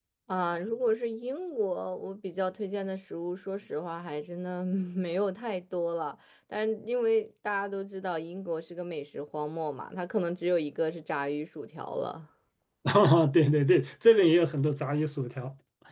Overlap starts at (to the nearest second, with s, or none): none